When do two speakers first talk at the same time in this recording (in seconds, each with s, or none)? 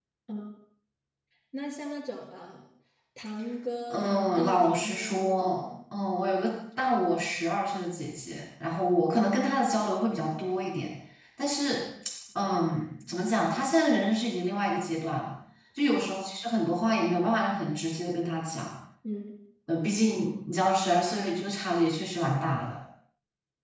3.9 s